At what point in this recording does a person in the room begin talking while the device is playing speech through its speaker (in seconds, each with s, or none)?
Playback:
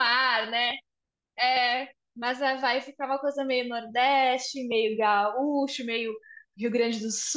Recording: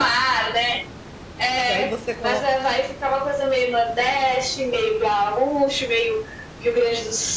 1.6 s